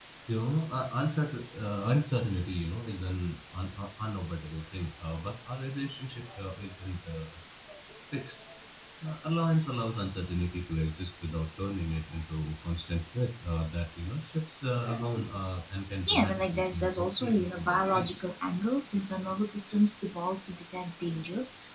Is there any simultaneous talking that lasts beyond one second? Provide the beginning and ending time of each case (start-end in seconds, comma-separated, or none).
16.1-18.2